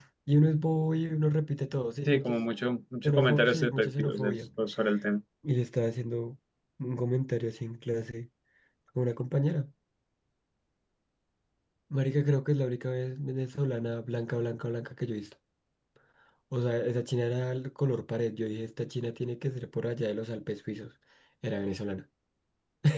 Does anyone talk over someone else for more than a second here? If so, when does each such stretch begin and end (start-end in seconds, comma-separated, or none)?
3.0-4.4